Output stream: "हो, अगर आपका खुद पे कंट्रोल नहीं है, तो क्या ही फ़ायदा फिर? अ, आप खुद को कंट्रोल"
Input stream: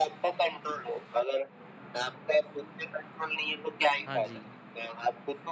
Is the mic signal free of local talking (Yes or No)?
No